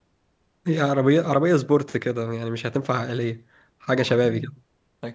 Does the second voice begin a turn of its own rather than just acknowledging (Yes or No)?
Yes